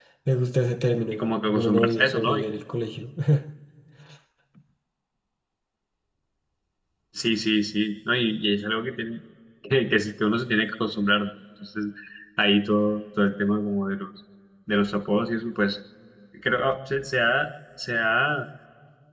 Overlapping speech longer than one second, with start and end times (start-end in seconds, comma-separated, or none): 1.1-2.5